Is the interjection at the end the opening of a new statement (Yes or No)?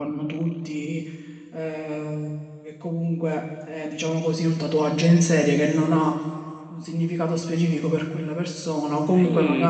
Yes